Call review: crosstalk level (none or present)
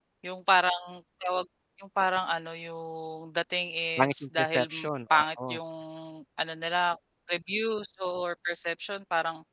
present